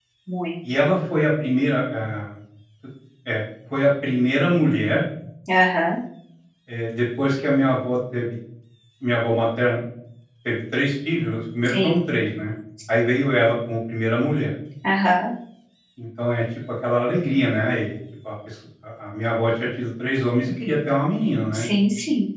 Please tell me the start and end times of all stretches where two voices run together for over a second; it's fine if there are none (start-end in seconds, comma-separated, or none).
none